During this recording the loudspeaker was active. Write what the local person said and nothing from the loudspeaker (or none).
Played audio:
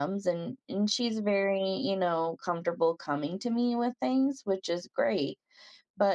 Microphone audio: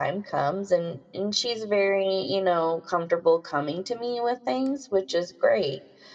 none